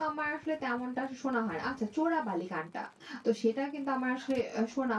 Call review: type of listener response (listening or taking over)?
listening